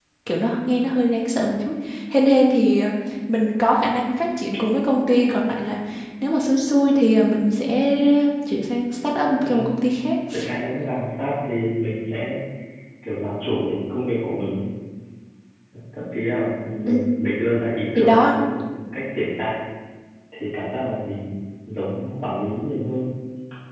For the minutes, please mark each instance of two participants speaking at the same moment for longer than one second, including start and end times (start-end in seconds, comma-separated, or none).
none